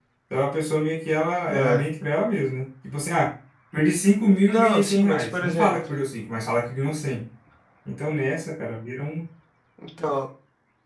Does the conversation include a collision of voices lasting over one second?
Yes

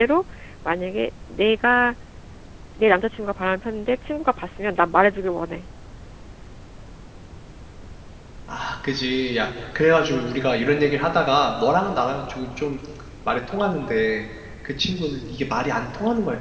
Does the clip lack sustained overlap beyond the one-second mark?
Yes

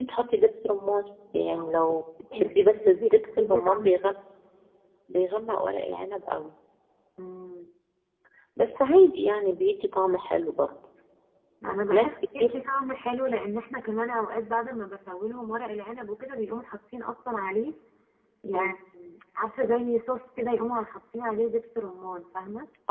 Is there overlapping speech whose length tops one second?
Yes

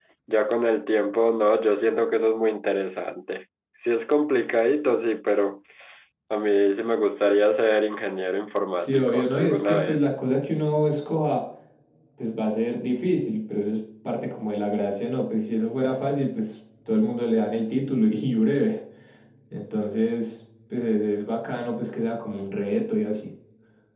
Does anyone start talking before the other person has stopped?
Yes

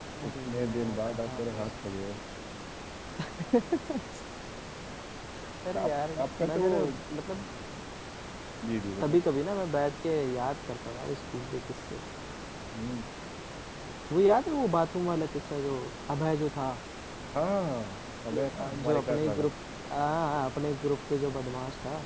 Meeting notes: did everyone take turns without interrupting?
No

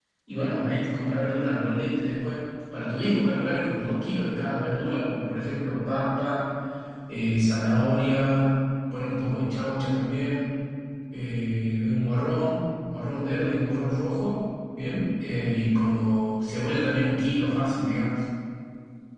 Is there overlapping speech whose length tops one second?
No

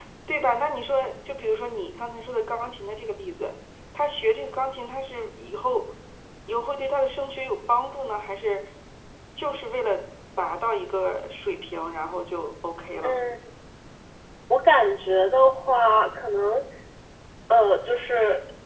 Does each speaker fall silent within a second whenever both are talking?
Yes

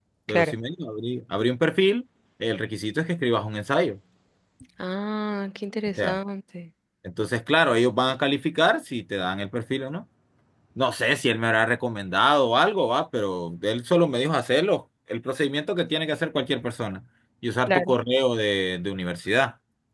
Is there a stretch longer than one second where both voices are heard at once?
No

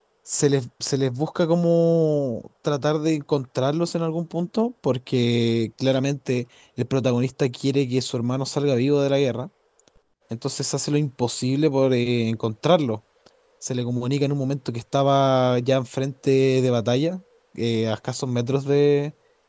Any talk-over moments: No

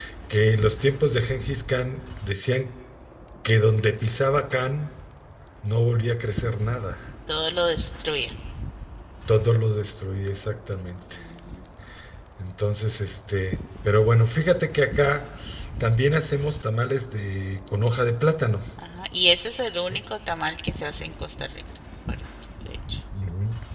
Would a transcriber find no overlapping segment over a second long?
Yes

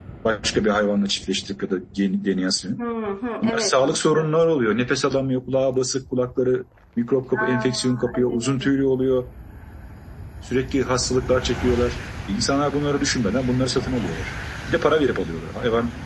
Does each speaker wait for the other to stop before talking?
No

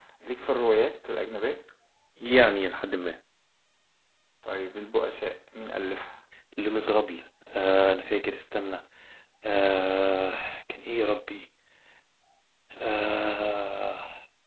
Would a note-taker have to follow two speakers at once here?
No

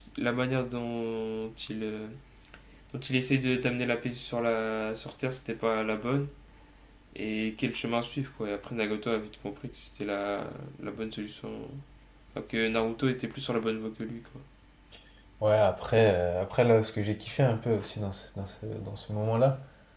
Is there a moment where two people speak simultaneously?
No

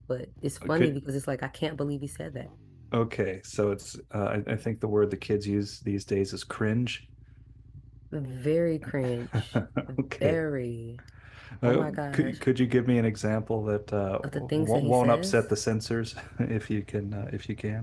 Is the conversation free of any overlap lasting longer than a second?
No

